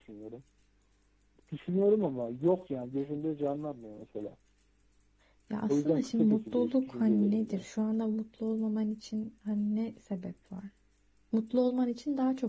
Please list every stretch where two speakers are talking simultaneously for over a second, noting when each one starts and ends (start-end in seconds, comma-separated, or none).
5.7-7.7